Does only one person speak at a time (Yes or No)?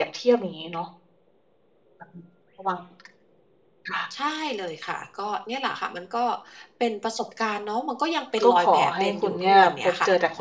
No